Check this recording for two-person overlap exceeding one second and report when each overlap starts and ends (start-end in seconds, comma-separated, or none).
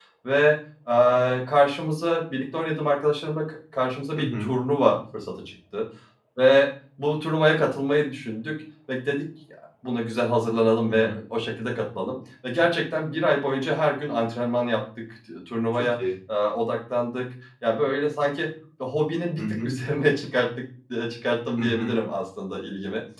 none